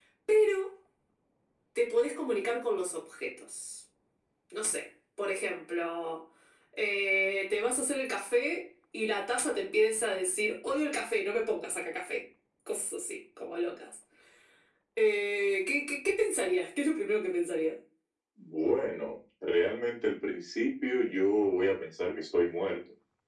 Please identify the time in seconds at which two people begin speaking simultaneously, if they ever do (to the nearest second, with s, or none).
none